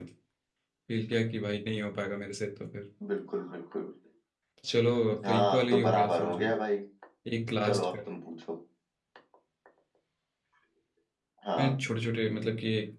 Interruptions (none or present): present